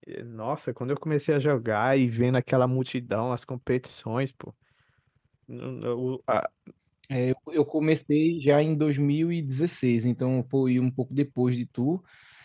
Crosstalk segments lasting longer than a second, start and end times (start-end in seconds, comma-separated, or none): none